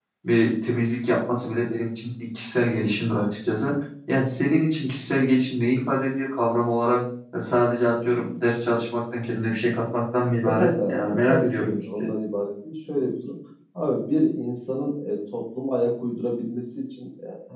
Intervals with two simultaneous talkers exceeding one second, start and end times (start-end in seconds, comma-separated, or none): 10.4-12.1